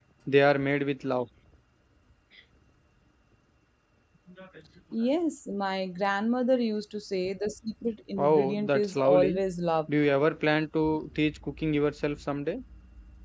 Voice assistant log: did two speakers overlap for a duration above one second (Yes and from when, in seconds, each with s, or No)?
Yes, from 8.2 s